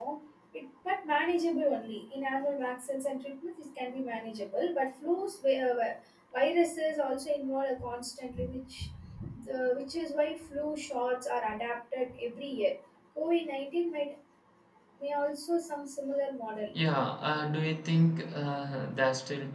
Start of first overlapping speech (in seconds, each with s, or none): none